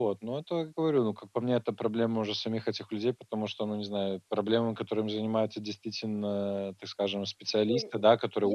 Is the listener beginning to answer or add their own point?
Yes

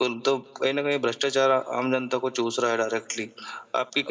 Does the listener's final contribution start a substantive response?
Yes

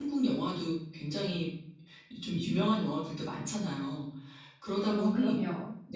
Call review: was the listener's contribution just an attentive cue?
Yes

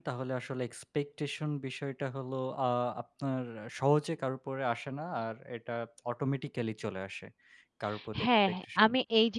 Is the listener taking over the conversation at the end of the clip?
Yes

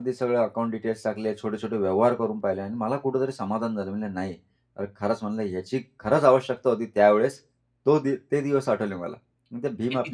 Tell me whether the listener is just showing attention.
Yes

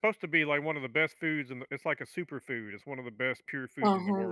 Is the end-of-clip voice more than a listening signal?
Yes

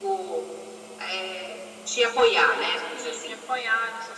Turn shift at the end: Yes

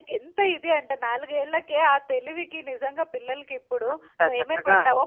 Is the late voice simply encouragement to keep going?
Yes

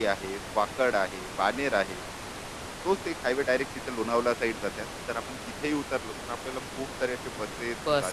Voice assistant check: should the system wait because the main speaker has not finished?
No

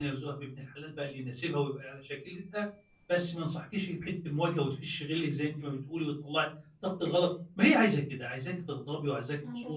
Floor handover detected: No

